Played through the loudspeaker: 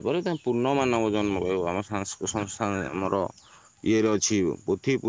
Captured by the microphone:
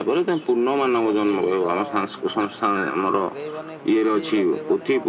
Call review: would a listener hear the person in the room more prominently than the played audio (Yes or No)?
No